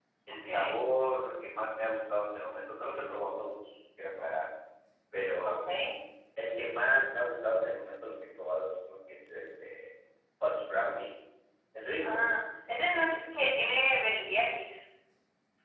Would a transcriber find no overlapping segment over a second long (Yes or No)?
Yes